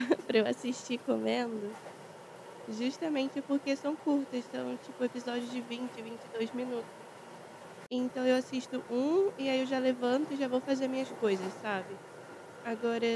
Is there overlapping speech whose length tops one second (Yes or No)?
No